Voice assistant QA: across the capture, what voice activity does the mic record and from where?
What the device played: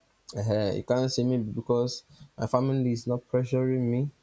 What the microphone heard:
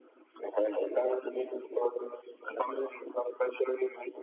echo only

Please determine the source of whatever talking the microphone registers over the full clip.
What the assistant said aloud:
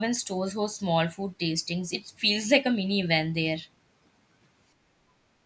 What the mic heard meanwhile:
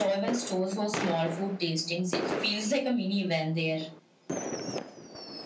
echo only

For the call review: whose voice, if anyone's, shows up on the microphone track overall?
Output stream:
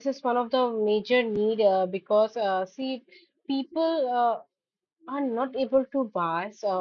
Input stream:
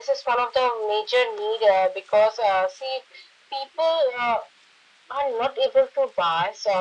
echo only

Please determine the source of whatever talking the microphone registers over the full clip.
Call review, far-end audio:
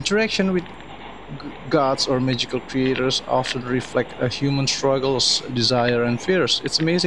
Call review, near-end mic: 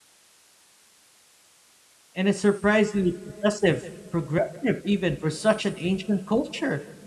user only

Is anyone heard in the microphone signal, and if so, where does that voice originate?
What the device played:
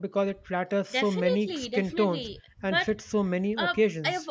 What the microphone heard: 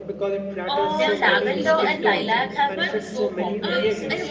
both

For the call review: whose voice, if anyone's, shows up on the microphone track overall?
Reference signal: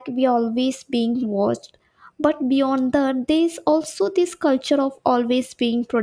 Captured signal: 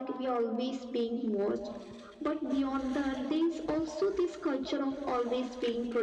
echo only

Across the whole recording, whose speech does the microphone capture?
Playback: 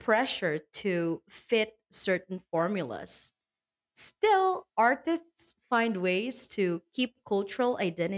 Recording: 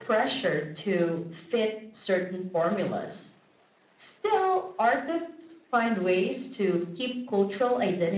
echo only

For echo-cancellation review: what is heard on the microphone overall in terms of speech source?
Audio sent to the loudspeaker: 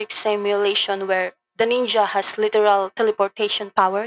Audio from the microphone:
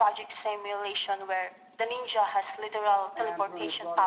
both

